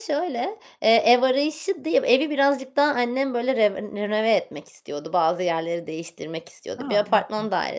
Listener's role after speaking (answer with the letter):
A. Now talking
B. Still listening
B